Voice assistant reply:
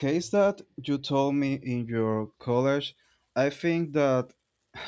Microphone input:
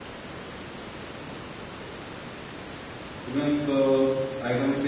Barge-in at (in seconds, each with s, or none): 3.2 s